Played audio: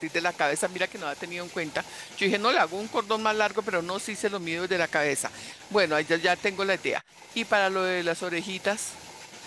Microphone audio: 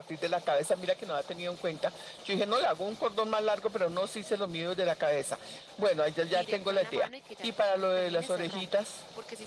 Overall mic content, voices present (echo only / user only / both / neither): both